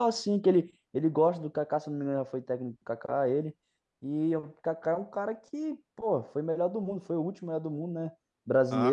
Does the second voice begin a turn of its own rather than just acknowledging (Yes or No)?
Yes